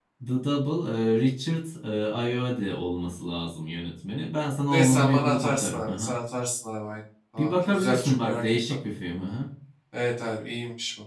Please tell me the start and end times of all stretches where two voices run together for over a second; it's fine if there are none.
4.7-6.2, 7.4-8.8

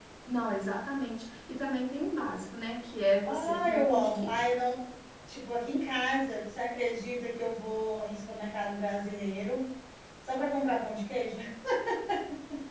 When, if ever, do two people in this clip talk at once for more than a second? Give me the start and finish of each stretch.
3.2-4.6

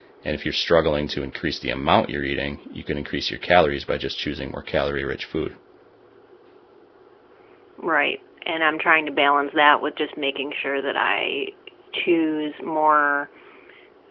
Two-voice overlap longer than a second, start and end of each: none

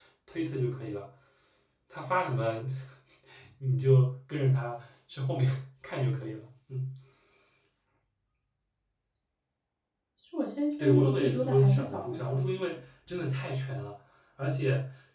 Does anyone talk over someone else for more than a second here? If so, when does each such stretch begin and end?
10.8-12.4

